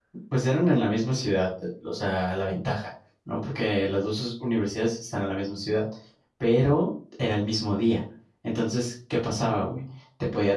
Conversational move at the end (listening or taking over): listening